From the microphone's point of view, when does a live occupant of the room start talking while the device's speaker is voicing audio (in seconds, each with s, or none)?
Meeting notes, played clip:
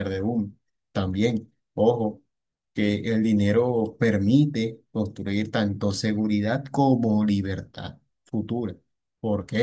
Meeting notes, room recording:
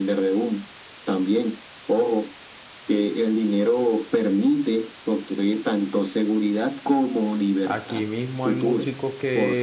7.6 s